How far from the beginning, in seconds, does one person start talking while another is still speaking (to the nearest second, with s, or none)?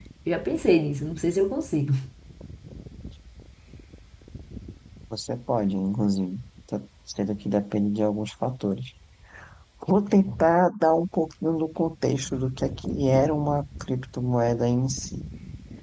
none